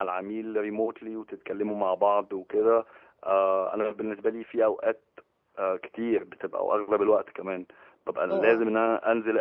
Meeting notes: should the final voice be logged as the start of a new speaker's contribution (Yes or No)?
No